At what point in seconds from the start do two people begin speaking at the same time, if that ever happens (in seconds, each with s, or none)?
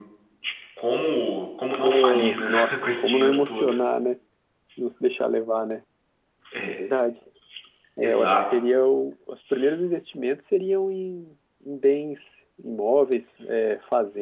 1.8 s